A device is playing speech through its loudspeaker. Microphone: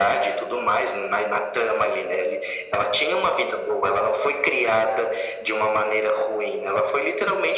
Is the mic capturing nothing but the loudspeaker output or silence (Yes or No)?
Yes